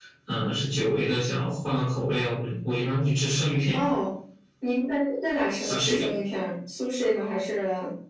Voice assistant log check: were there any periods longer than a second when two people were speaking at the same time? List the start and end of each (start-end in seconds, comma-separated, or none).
none